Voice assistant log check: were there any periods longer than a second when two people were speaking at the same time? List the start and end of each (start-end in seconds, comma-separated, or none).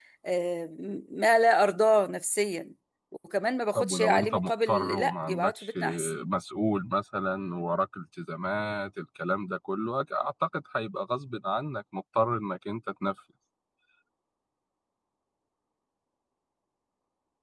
3.8-6.1